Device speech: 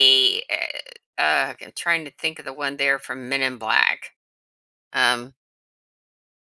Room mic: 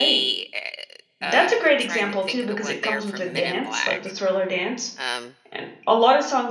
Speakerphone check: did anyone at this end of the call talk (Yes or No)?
Yes